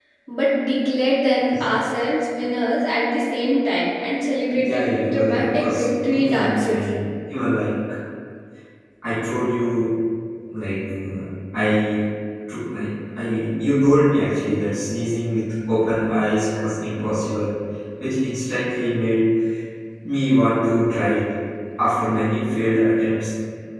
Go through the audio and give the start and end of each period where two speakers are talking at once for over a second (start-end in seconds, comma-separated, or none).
4.5-6.8